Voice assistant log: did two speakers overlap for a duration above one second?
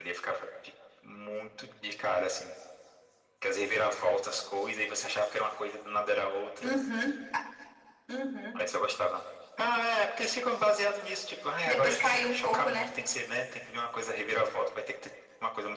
Yes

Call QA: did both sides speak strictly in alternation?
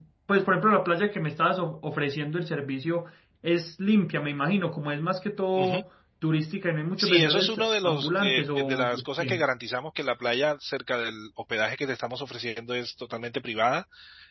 No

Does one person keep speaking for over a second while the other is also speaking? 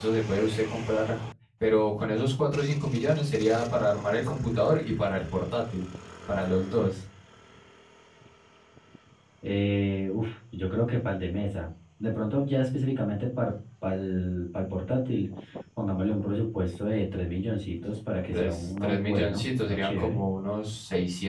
Yes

